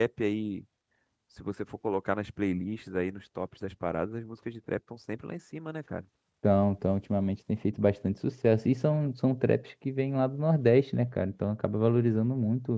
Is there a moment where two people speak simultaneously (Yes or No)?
No